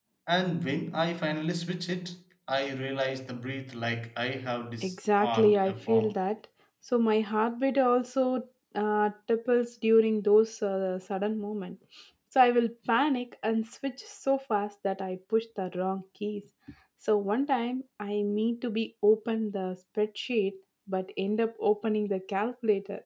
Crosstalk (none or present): present